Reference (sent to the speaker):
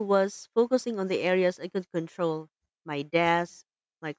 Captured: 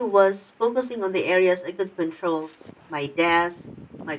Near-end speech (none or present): none